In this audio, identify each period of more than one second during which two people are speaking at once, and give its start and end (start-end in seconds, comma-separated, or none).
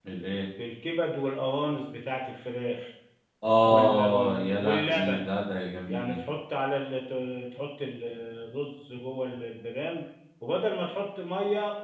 3.6-5.3